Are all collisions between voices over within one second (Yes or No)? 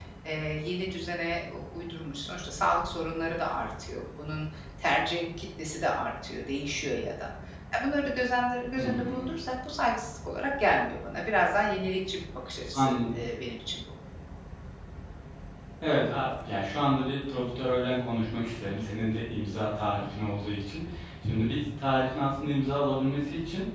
Yes